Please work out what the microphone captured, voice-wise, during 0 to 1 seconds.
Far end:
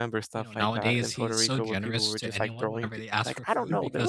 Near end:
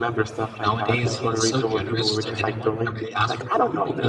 both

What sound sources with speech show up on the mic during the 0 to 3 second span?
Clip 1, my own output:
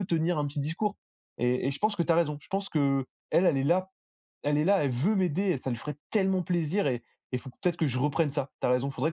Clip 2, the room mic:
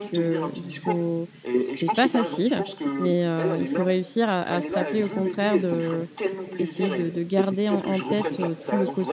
both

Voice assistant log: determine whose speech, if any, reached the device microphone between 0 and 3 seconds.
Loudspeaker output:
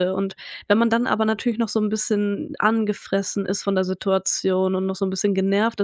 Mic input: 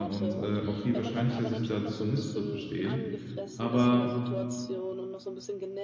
both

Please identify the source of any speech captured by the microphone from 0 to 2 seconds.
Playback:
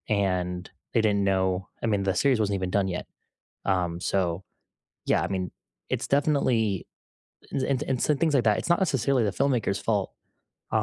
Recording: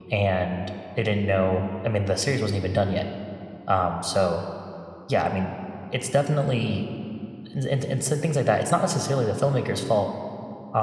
echo only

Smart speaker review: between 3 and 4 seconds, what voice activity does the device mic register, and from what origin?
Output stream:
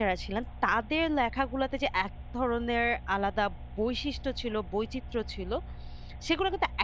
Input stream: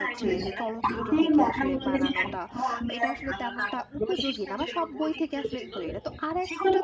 both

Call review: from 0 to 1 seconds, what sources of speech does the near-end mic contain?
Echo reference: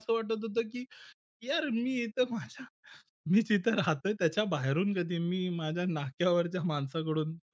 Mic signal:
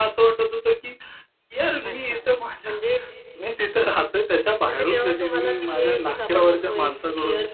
echo only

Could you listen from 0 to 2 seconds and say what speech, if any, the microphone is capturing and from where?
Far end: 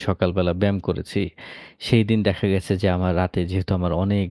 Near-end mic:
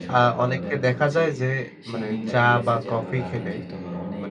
both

